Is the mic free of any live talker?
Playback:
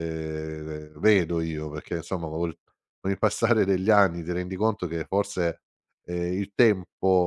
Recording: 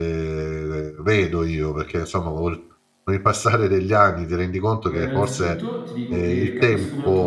No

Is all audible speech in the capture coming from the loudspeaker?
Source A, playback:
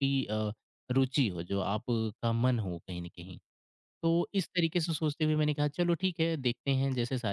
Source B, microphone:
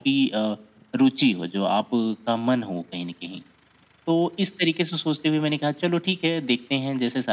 Yes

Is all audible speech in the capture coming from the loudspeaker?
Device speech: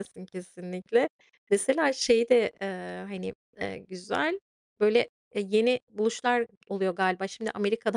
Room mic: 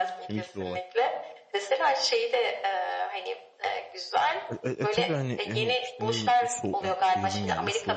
No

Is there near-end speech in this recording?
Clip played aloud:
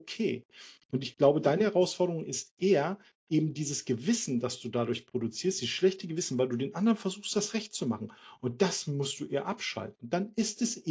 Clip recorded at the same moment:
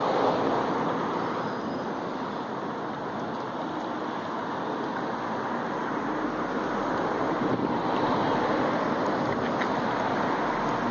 No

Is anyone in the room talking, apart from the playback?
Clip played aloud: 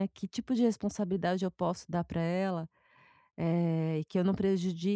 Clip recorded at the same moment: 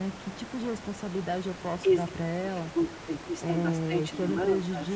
Yes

